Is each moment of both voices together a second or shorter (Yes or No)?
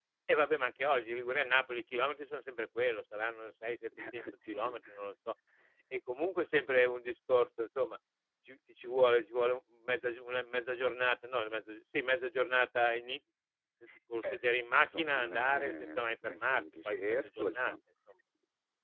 No